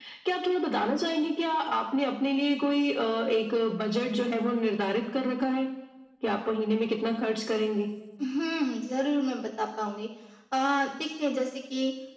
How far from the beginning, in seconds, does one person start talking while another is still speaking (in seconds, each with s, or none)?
none